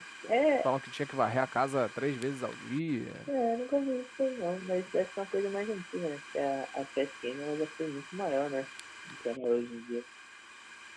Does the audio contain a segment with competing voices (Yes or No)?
No